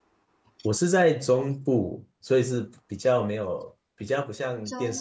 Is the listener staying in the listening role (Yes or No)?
Yes